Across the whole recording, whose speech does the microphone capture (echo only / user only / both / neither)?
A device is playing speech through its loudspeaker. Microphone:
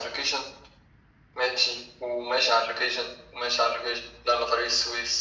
echo only